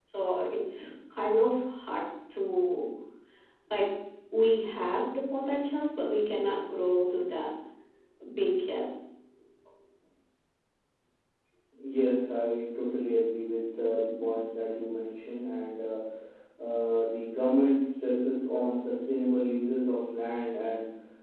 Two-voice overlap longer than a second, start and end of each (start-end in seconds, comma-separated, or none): none